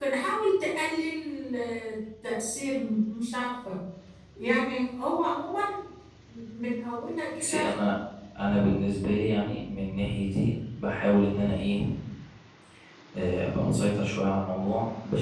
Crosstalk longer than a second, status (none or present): none